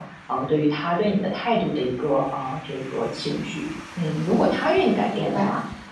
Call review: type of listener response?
listening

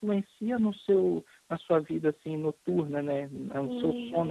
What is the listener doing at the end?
taking over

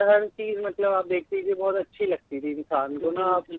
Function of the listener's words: listening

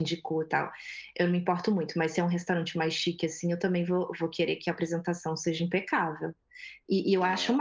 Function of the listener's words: listening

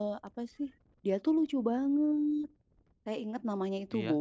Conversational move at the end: listening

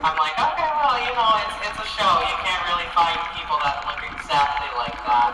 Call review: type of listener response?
taking over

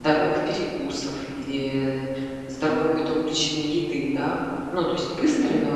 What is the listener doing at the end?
listening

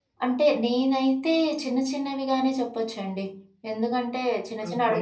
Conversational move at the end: listening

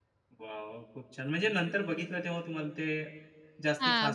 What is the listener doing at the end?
taking over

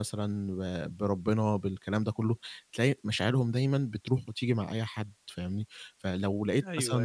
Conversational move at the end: taking over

